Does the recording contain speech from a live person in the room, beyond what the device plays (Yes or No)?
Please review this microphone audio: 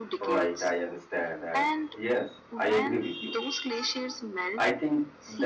Yes